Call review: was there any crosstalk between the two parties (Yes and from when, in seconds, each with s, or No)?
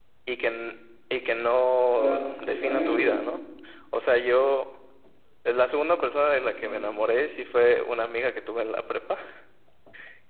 Yes, from 1.9 s